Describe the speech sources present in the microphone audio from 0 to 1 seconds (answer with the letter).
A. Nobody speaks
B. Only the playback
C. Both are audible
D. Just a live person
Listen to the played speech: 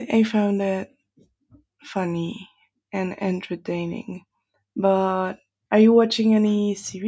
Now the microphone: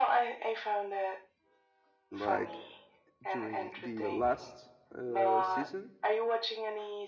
B